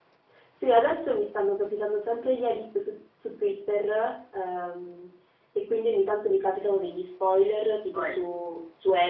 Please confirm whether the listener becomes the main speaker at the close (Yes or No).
No